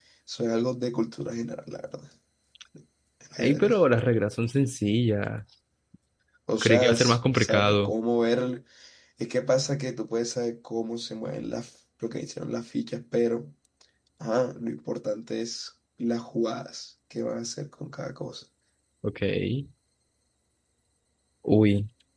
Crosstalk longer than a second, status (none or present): present